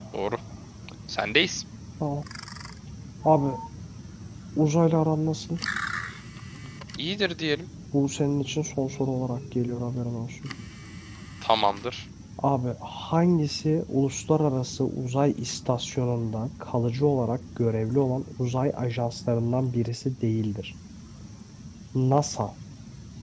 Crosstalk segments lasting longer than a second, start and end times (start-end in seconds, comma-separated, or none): none